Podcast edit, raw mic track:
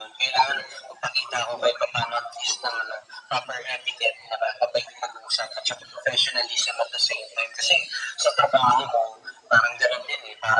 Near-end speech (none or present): none